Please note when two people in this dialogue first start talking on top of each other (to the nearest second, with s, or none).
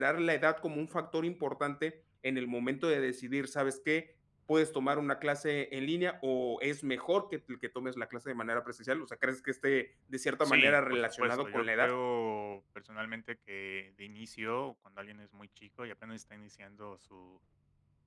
10 s